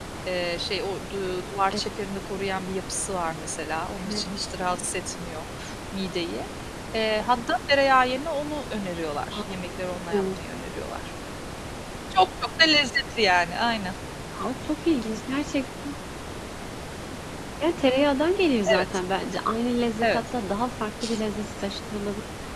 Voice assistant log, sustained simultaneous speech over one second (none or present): none